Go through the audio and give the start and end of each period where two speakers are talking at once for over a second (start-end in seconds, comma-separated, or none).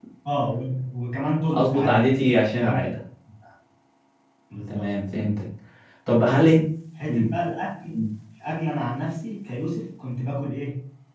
1.5-2.8